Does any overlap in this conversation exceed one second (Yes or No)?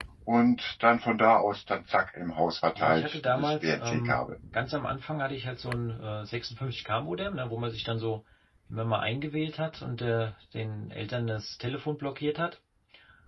Yes